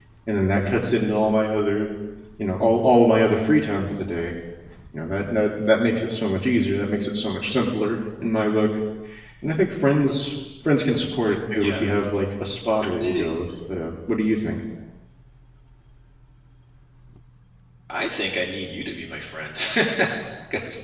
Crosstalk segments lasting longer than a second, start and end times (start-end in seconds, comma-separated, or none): none